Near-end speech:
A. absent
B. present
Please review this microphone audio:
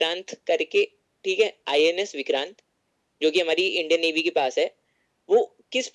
A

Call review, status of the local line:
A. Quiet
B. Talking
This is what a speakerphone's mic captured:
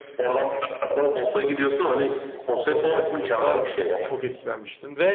B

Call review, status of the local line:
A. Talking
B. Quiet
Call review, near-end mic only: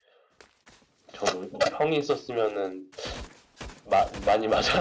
B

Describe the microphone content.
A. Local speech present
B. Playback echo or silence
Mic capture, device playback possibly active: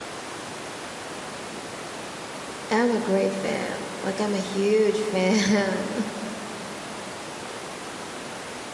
A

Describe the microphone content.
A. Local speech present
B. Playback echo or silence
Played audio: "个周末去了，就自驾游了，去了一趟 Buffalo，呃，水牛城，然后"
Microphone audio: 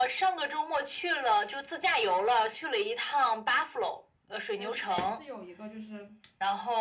A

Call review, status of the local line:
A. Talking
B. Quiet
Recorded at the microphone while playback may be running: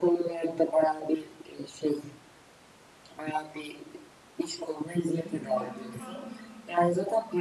A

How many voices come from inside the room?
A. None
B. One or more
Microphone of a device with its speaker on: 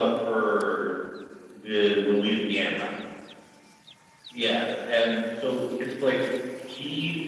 A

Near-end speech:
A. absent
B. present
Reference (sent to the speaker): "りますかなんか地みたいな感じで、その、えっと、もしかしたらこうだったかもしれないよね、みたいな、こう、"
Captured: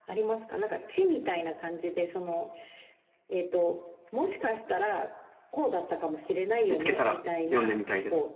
B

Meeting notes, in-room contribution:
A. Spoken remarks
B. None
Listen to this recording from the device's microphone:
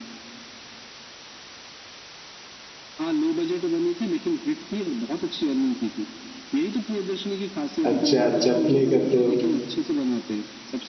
A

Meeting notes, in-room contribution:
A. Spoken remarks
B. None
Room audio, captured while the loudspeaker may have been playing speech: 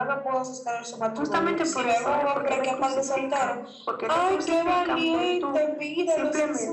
B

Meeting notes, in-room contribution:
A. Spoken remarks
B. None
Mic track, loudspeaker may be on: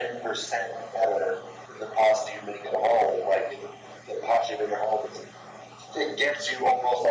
B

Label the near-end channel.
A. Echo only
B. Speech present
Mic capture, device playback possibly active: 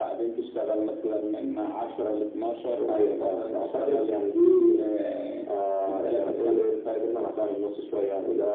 A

